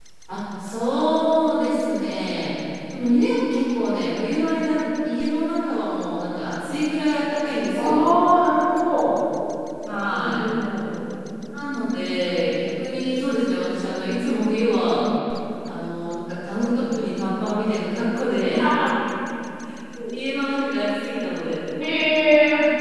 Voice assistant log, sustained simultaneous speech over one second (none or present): none